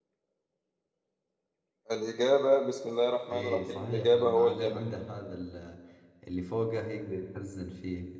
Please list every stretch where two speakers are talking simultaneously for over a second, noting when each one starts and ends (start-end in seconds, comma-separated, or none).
3.3-4.8